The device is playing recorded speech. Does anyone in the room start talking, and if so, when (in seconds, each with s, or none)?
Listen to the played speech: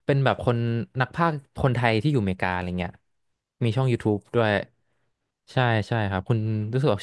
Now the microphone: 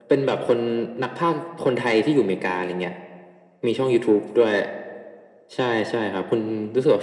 none